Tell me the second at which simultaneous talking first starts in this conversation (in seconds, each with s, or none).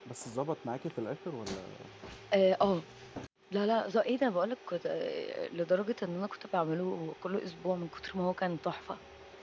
none